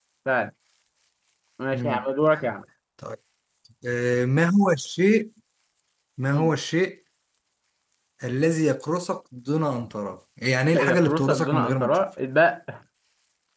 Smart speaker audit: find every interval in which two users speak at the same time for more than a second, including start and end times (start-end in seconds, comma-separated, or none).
10.8-12.0